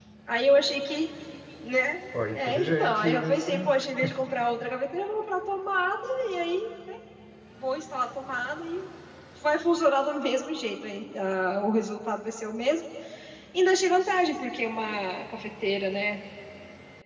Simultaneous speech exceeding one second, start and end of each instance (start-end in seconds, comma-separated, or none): 2.3-3.7